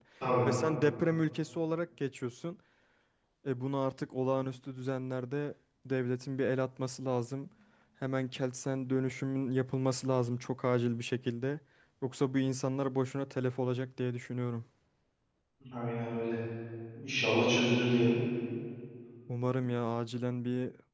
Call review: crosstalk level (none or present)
none